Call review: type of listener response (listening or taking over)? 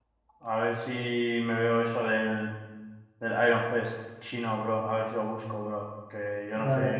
listening